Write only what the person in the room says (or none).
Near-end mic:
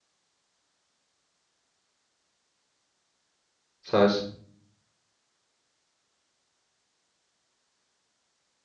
¿sabes?